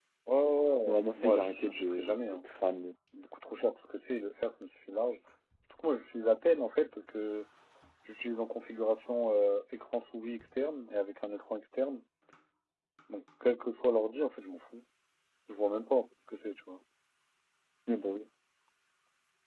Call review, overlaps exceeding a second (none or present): present